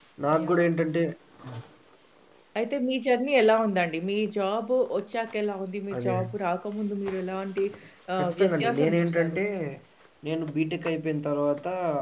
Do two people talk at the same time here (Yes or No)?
Yes